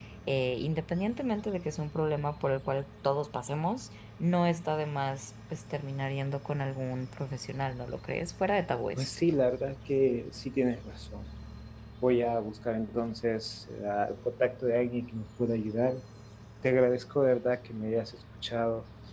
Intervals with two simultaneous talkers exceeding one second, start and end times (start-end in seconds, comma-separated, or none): none